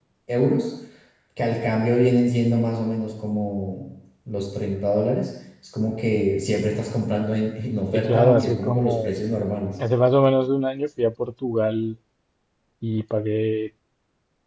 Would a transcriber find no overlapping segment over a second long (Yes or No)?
No